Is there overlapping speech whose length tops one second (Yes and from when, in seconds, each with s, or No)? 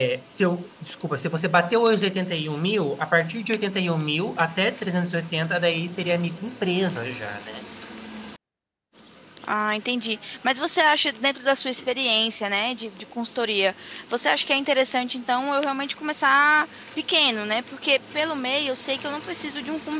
No